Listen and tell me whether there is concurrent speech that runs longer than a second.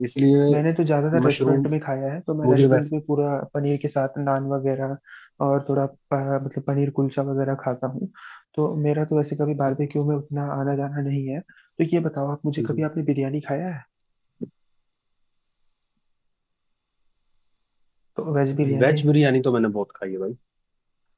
No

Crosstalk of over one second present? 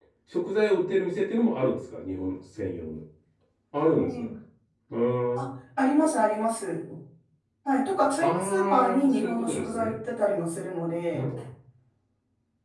Yes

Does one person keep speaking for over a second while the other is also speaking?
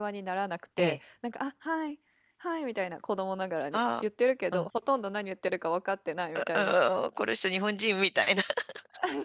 No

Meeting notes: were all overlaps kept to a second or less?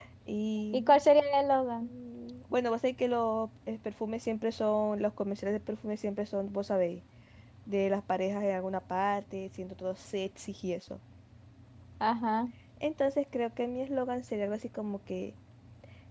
Yes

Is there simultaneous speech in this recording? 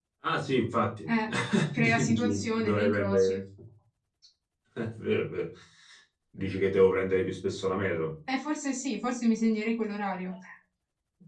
Yes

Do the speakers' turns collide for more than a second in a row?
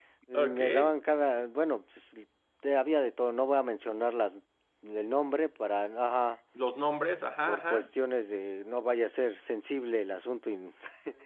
No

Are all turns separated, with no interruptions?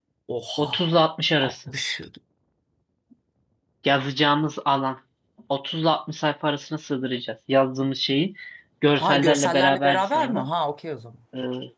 No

